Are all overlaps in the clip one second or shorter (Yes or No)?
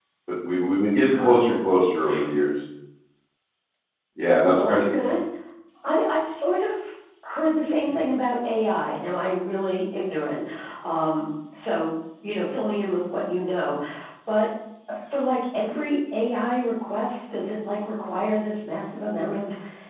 Yes